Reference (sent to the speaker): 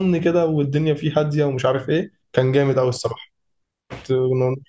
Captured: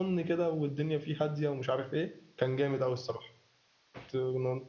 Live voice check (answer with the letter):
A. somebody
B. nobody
B